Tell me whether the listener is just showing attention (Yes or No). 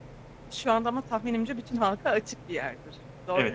No